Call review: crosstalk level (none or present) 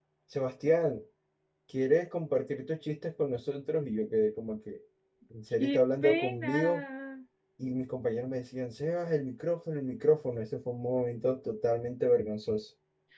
present